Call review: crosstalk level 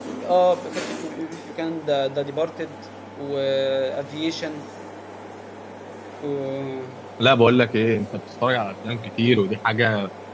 none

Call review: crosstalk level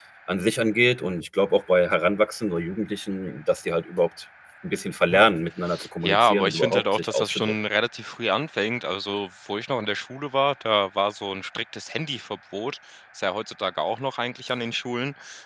present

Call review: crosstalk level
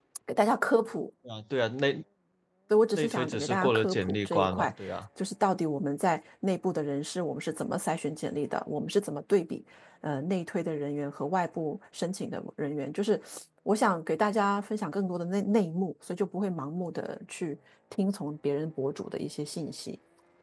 present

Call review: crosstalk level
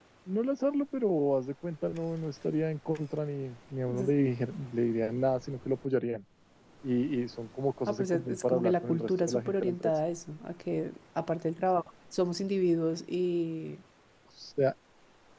present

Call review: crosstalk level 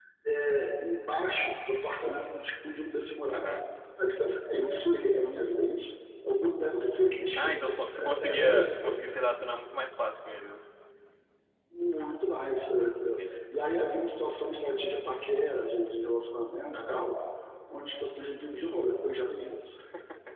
present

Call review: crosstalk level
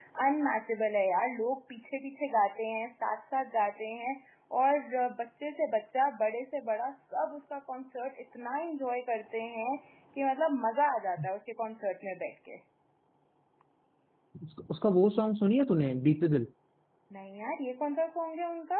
none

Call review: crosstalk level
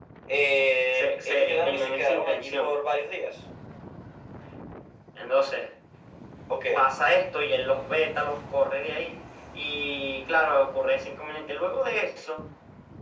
present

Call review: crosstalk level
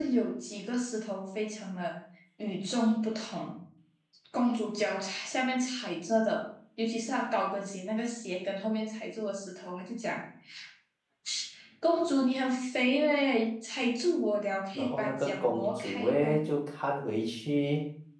present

